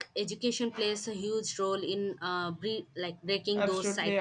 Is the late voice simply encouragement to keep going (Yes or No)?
No